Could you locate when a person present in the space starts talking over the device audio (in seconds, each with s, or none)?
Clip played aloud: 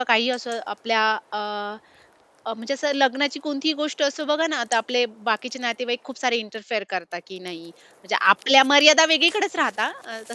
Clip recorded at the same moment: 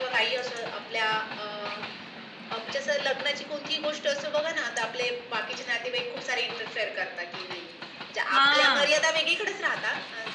8.3 s